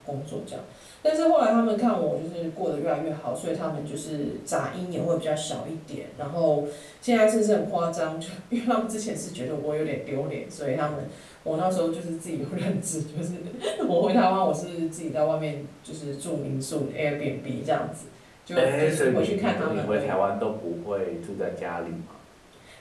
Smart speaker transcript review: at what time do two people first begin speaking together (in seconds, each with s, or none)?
18.6 s